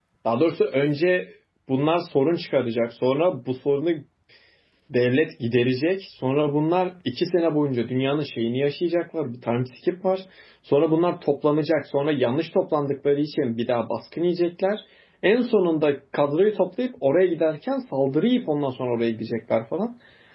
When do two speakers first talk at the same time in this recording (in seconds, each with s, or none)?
none